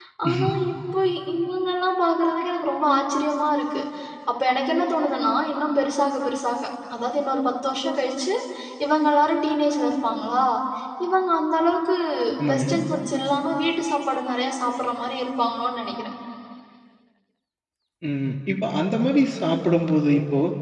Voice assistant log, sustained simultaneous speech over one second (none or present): none